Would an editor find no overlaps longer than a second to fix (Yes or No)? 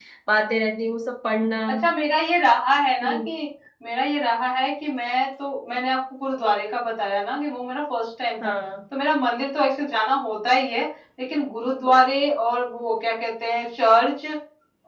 Yes